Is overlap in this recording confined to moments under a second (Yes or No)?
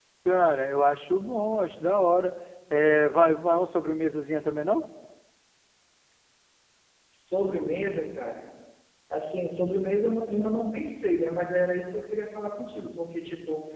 Yes